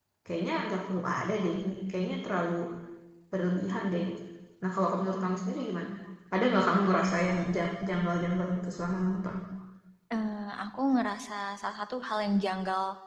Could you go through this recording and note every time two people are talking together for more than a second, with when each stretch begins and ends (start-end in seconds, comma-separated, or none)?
none